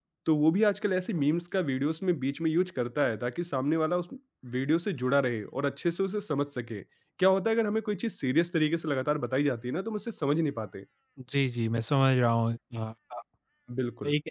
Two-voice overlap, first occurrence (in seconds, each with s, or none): none